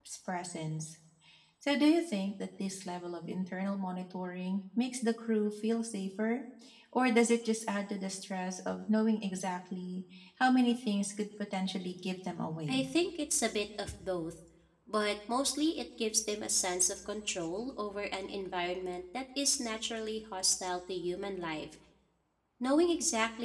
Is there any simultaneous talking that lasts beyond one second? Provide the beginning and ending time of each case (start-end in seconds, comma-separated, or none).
none